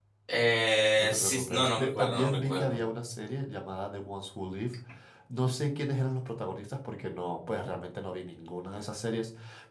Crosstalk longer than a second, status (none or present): present